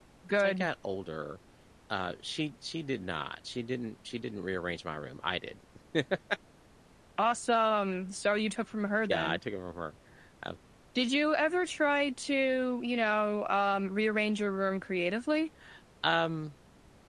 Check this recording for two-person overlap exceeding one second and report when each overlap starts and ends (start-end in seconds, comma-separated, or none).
none